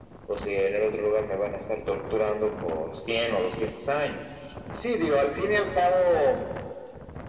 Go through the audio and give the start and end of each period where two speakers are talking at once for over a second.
none

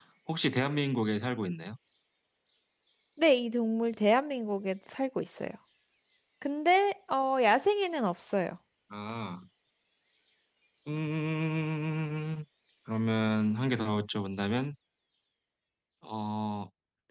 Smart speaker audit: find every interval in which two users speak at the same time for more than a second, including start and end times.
none

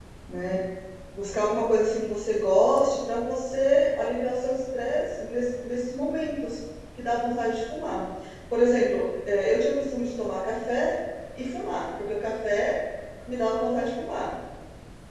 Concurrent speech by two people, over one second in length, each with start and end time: none

